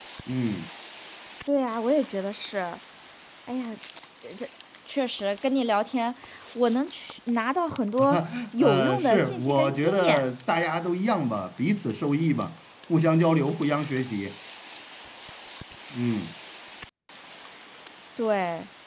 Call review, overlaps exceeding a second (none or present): present